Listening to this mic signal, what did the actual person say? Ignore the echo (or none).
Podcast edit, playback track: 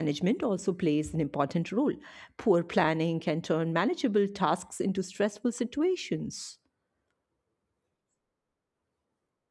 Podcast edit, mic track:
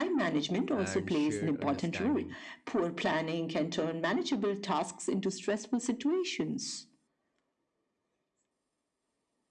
and shared understanding